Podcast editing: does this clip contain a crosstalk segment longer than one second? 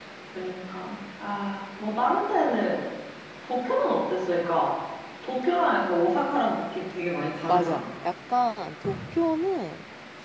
No

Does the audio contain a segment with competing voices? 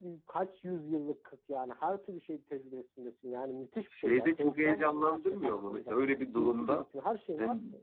Yes, from 3.9 s

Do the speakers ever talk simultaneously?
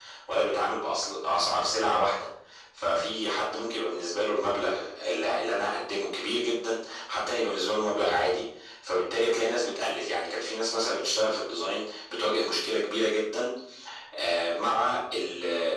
No

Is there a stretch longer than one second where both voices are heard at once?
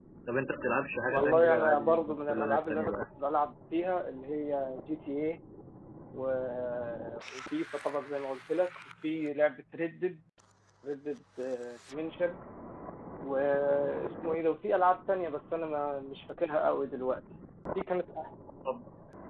Yes, from 1.1 s

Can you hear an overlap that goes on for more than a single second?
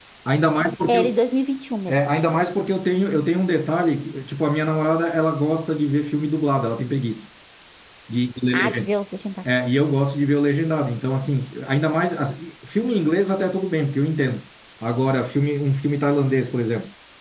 No

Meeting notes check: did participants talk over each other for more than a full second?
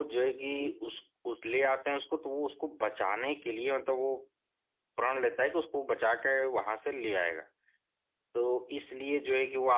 No

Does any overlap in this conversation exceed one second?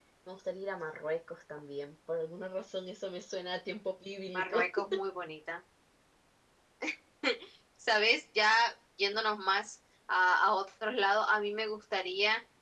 No

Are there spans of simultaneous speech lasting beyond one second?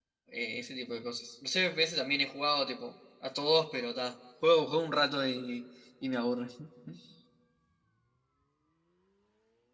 No

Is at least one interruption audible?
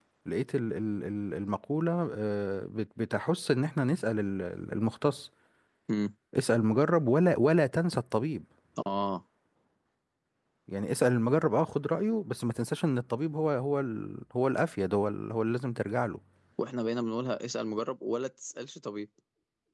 No

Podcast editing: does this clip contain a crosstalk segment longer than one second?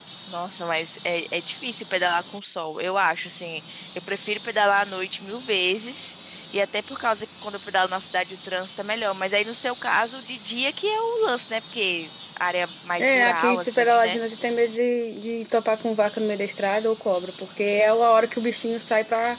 Yes, from 13.0 s

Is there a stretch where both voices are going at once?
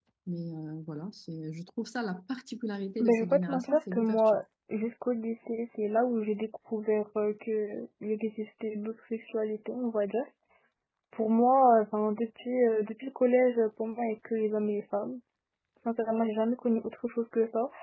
Yes, from 3.0 s

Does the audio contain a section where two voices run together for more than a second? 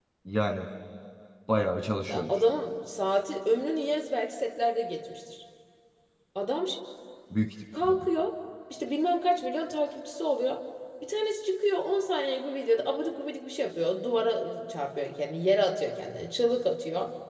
No

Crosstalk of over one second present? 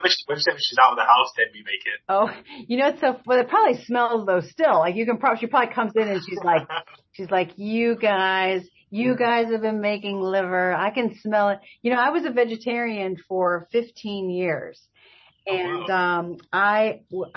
No

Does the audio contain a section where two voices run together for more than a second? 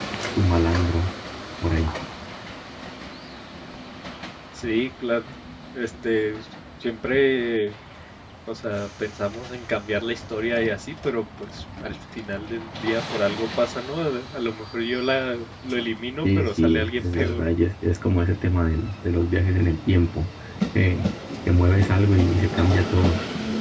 Yes, from 16.2 s

